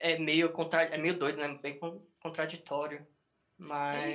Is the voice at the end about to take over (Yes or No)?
Yes